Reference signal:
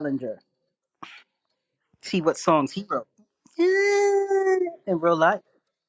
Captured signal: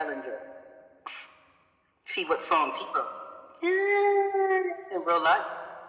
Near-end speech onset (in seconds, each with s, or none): none